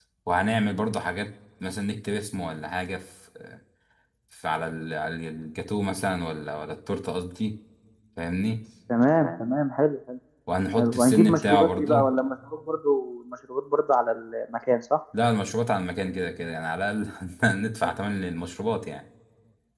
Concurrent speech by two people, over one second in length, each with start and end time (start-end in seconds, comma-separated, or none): 10.8-12.0